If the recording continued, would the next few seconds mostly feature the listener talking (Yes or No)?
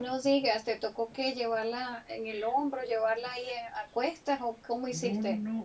Yes